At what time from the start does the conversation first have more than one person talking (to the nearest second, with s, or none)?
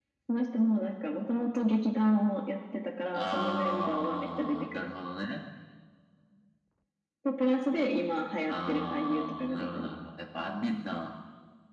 3 s